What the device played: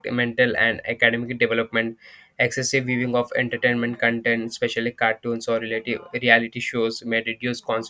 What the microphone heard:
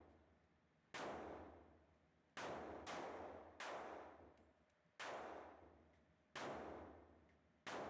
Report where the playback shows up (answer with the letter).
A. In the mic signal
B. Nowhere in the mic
B